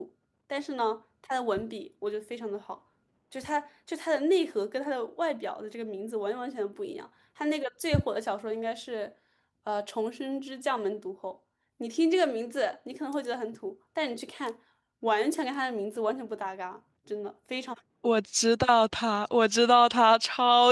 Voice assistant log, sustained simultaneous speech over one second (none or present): none